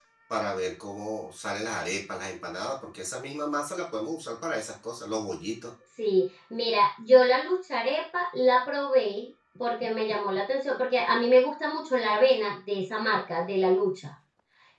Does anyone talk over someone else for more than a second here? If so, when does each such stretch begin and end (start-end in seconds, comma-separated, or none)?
none